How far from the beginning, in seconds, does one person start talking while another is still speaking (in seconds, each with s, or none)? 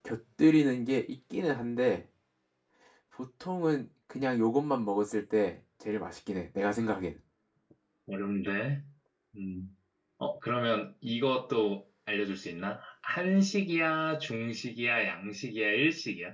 none